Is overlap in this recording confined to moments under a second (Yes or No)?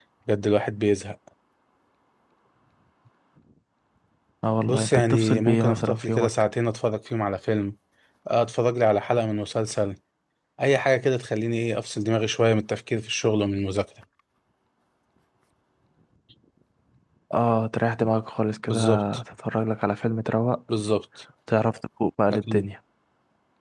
No